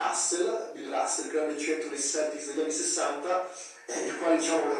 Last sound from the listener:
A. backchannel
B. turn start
A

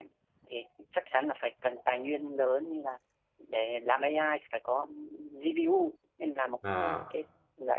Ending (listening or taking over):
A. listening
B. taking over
A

